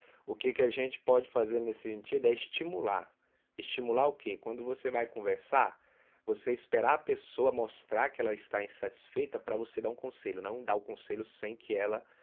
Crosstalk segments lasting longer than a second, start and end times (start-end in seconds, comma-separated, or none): none